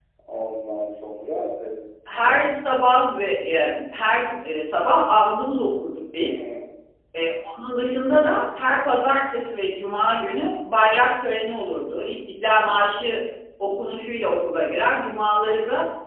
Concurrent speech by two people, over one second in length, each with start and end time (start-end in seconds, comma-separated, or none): none